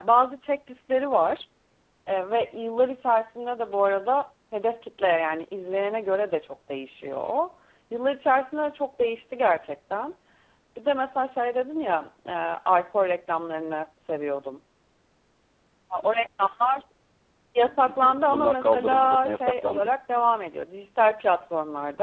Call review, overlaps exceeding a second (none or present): present